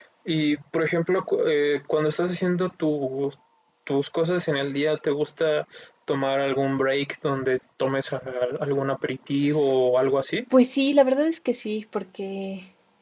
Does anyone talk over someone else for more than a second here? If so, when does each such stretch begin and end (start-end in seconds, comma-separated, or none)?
none